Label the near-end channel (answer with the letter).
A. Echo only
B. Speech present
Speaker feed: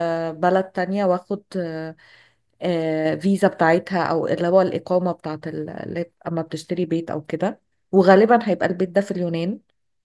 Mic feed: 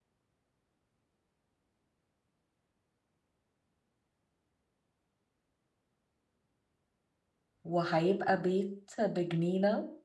B